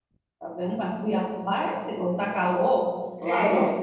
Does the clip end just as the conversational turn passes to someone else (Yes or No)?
No